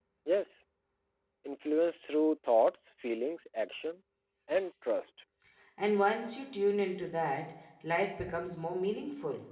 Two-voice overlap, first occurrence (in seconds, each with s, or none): none